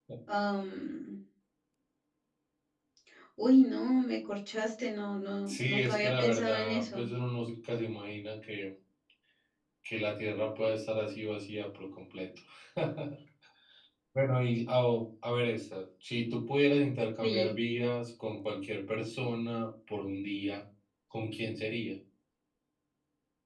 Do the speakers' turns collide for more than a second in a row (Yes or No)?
Yes